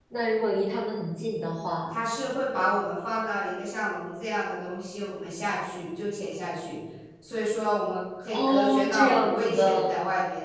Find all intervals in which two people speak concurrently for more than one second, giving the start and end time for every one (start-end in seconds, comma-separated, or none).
8.3-9.9